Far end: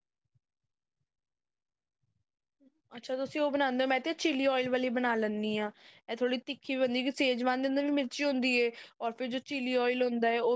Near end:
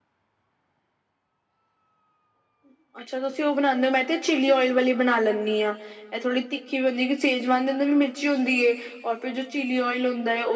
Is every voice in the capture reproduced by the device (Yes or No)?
Yes